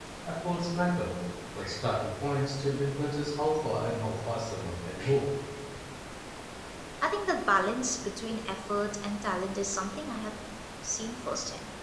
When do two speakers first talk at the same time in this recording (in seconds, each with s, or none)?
none